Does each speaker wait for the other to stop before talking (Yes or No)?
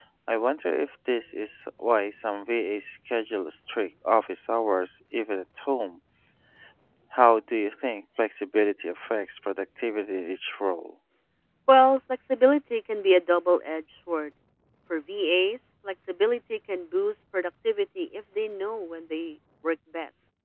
Yes